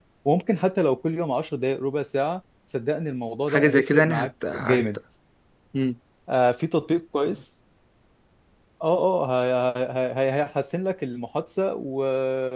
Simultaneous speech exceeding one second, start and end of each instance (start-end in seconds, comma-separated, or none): 3.5-4.8